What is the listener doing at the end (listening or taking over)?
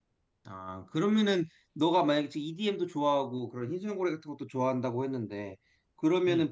listening